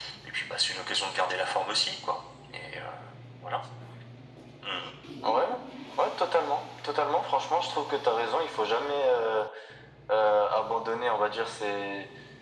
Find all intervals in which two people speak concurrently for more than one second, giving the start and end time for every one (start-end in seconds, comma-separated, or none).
none